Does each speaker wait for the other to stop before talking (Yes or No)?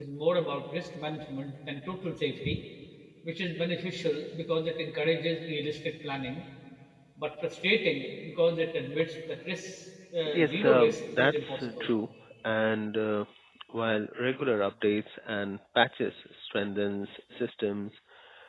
No